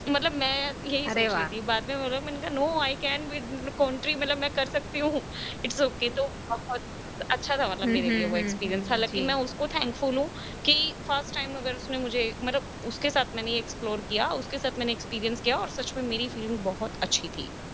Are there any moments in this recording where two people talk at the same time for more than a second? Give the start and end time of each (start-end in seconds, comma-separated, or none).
7.8-9.2